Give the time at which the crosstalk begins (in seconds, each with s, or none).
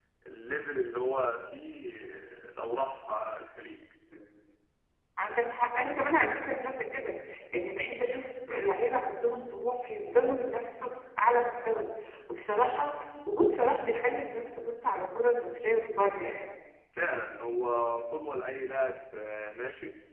none